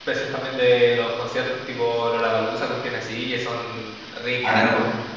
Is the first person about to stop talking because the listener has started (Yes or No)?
Yes